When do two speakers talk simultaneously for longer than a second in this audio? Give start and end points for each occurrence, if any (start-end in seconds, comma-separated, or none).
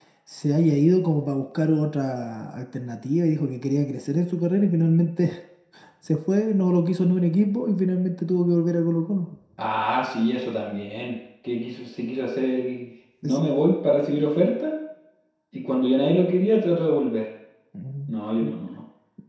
none